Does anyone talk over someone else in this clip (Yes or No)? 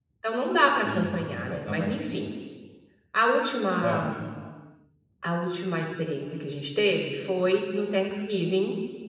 Yes